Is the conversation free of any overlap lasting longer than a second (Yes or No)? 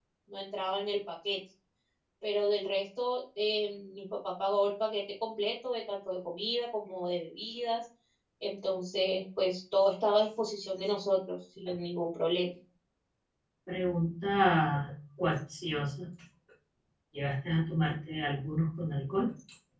Yes